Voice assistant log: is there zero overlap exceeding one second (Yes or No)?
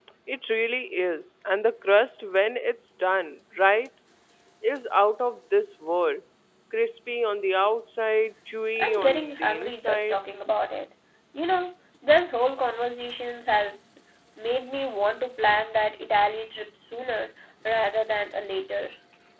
No